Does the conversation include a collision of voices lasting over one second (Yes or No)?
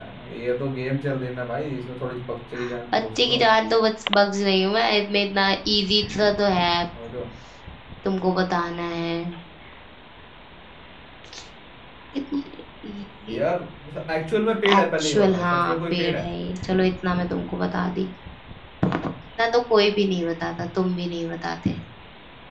Yes